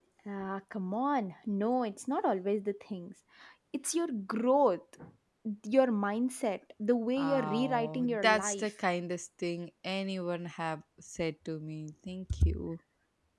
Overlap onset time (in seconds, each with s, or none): 7.2 s